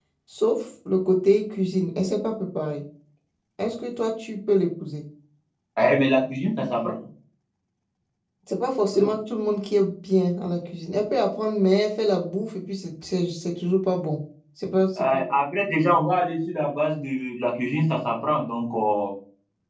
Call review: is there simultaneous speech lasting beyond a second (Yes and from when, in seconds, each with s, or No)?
No